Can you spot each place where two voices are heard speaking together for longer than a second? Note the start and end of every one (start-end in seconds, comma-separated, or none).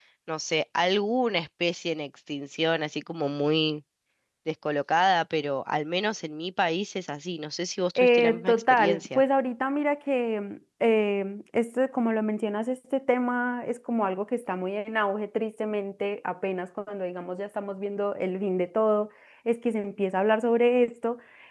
8.0-9.2